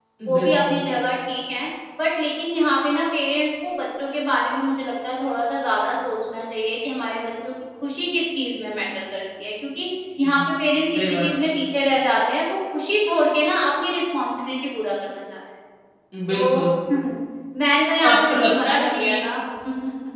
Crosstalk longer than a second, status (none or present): present